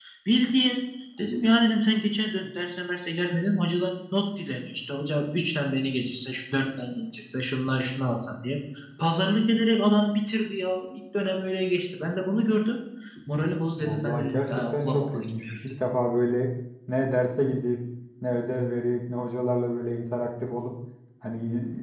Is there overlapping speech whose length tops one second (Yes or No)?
Yes